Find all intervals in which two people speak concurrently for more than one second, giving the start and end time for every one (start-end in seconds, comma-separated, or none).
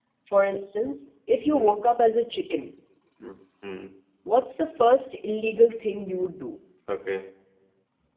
none